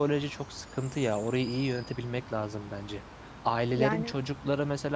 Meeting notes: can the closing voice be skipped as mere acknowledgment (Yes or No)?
Yes